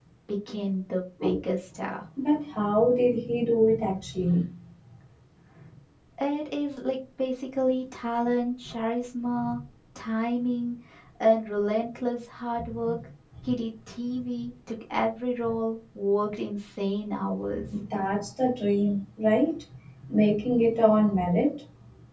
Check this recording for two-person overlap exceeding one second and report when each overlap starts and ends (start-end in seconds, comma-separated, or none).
none